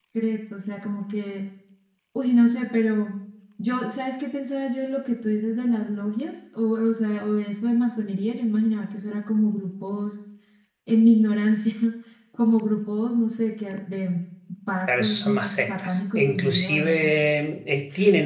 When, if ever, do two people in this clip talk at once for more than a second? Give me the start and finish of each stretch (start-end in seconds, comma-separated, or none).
14.9-17.1